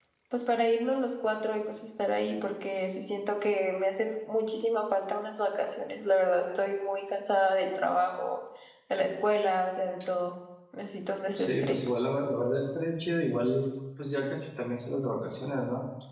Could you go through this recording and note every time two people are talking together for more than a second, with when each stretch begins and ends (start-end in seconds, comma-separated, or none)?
none